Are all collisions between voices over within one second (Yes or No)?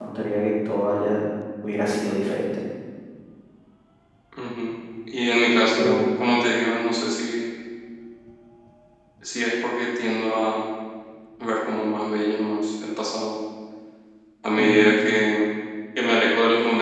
Yes